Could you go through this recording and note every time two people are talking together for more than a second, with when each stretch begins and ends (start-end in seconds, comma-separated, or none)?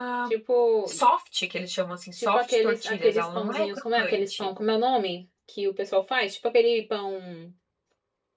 2.1-4.5